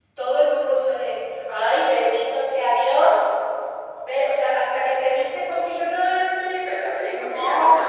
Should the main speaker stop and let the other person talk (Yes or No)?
Yes